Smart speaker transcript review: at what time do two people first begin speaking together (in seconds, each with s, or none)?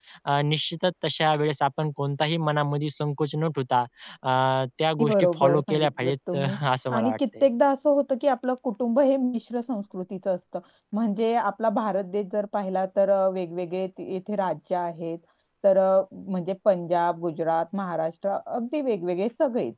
5.0 s